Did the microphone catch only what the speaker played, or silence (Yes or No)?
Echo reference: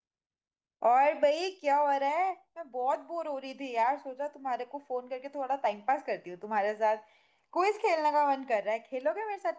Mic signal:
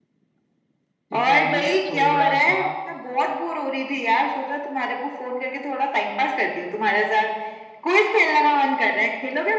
No